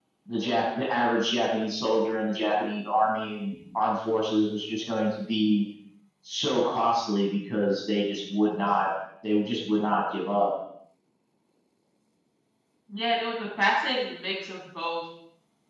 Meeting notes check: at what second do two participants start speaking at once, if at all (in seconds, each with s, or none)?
none